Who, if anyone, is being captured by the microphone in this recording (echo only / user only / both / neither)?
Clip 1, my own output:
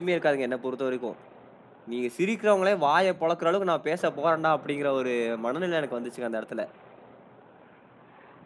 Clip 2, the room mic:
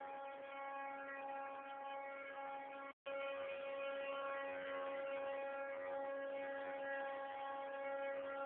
neither